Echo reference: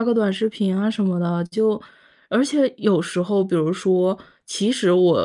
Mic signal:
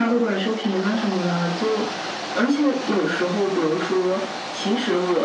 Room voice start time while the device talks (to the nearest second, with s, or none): none